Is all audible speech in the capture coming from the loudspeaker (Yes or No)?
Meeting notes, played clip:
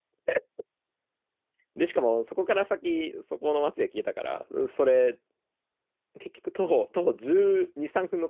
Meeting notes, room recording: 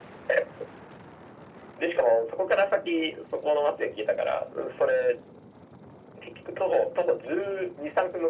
Yes